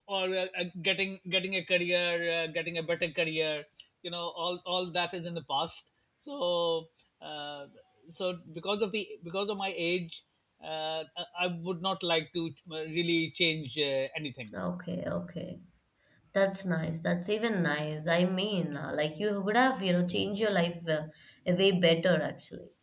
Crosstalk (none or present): none